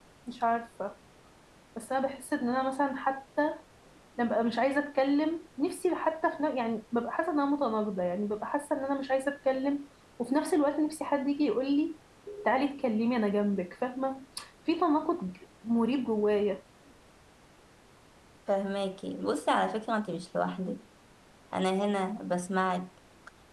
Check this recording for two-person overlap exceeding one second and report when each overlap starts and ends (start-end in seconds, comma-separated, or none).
none